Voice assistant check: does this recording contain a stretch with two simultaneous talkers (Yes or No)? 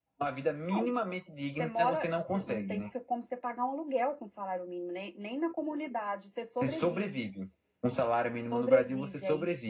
Yes